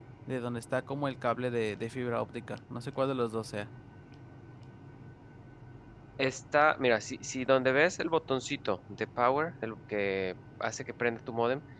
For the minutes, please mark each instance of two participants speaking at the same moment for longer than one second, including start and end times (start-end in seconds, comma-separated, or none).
none